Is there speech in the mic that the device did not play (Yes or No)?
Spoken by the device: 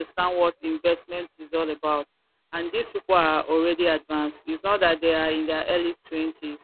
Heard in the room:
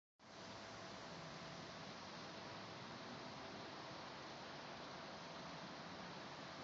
No